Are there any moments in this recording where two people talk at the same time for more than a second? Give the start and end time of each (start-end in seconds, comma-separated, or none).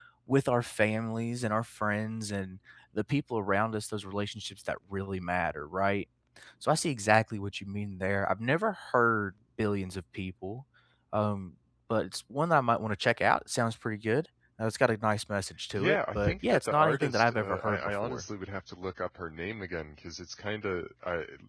15.8-18.2